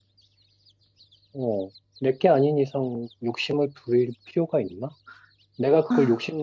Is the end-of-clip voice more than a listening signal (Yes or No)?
No